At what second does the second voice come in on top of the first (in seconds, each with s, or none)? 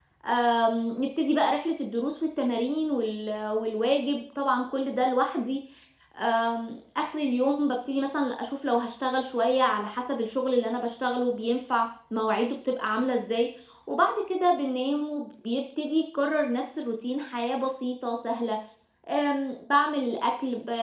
none